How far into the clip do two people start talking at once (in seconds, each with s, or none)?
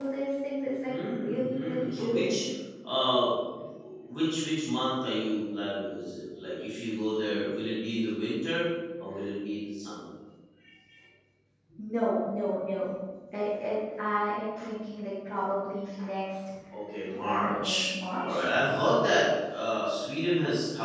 0.9 s